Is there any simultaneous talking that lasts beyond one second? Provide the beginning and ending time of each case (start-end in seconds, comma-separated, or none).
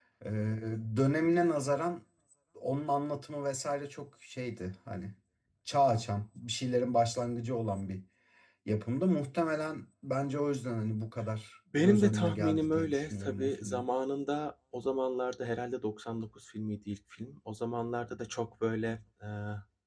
11.8-13.8